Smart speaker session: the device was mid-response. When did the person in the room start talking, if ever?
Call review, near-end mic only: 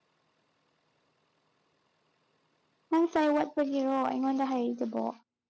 3 s

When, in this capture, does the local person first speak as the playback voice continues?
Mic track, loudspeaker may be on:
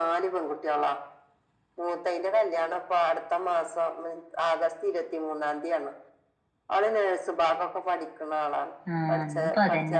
9 s

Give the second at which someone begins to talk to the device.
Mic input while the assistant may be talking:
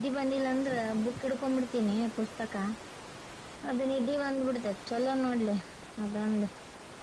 none

